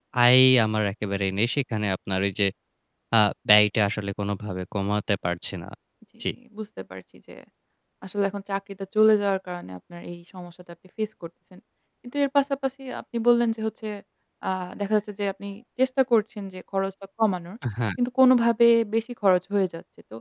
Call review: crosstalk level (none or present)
none